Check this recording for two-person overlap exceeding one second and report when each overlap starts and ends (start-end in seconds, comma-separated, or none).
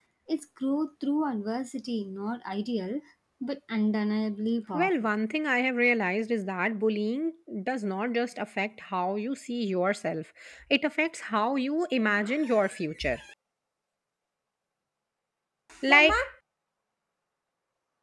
none